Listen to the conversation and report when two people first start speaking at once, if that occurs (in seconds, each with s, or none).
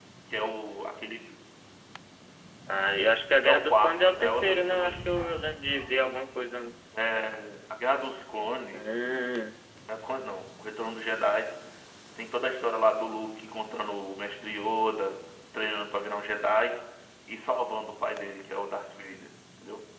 3.4 s